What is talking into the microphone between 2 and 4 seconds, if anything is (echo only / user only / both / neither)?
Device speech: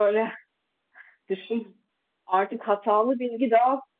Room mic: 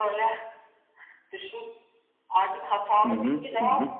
both